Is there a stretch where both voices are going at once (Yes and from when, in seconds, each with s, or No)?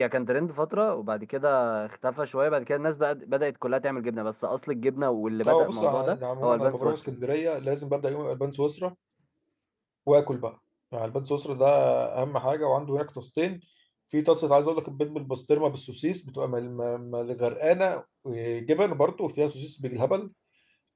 Yes, from 5.4 s